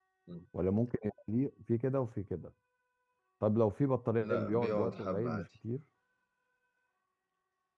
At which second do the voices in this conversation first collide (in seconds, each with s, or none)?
4.2 s